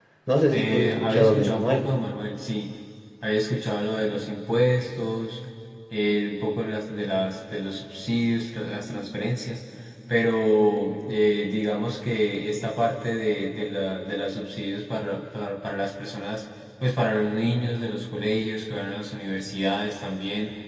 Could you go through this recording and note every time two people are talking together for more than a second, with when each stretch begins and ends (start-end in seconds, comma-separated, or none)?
0.5-1.8